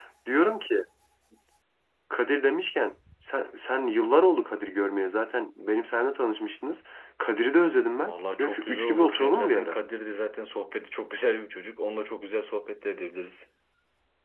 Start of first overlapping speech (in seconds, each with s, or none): 8.0 s